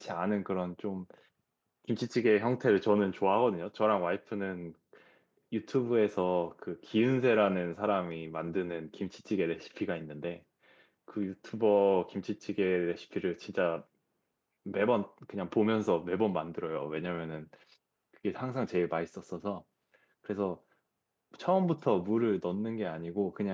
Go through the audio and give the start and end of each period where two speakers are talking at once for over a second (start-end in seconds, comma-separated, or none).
none